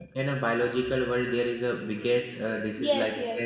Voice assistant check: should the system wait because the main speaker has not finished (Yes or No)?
No